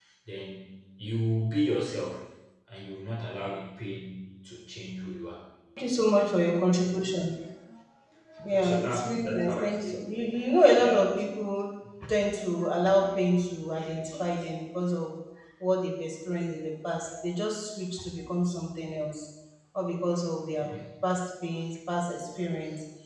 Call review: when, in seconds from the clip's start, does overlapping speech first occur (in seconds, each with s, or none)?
8.5 s